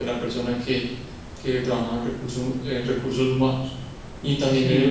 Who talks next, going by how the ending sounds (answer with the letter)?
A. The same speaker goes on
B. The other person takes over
A